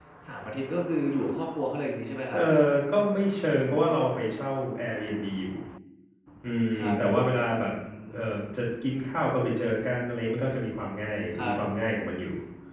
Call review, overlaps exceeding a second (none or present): none